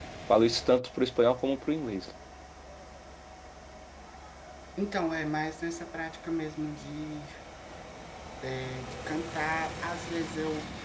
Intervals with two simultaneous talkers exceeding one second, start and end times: none

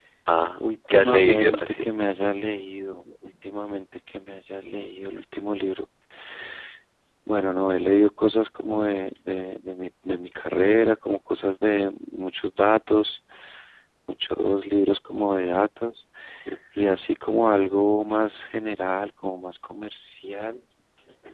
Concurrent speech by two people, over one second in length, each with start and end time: 0.6-1.9

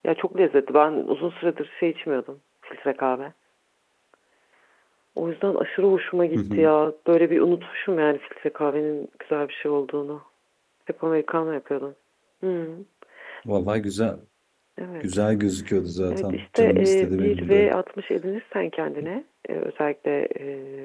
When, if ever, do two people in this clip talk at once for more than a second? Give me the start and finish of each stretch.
16.1-17.7

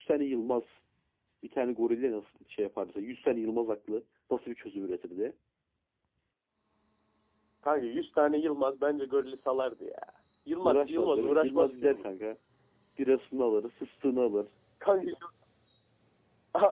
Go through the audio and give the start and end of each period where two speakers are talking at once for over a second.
10.6-12.1

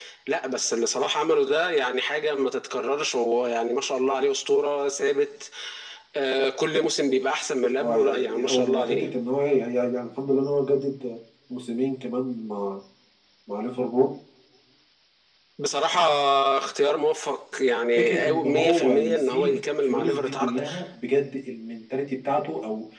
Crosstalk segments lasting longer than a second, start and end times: 7.8-9.1, 18.0-20.6

